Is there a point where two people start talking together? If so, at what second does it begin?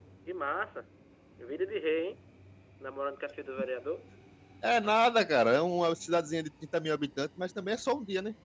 none

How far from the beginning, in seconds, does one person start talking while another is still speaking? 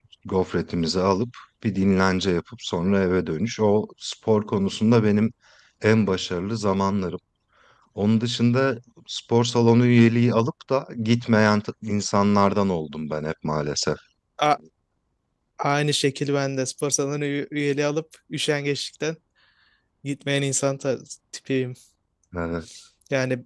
none

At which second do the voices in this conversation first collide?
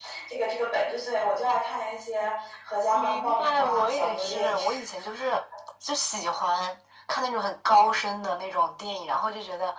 3 s

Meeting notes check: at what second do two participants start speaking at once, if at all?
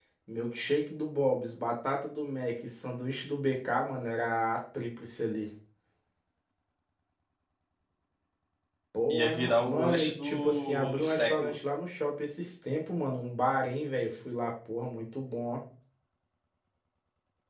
9 s

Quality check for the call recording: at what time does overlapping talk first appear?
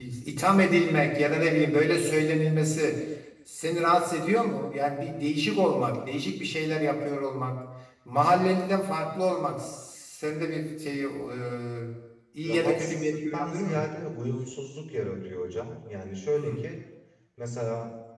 12 s

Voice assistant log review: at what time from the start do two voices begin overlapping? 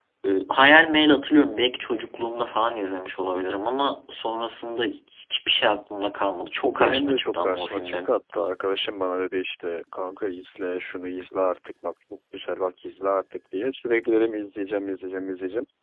7 s

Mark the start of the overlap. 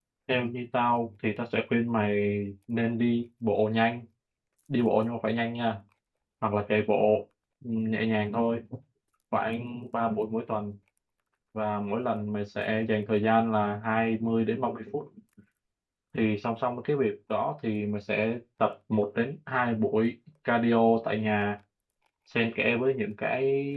none

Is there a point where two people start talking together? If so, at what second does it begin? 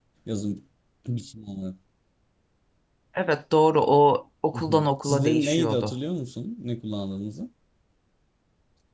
5 s

